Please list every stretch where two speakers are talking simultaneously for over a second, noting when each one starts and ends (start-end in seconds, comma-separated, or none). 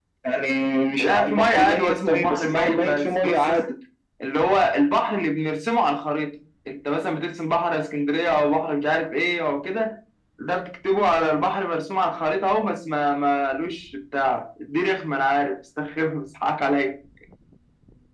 1.0-3.6